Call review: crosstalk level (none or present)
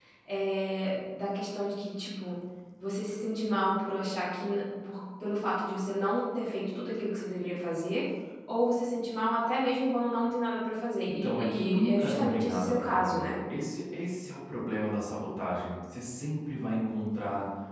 present